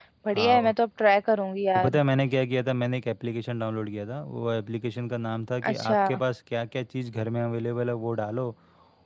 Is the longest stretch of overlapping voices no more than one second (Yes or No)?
Yes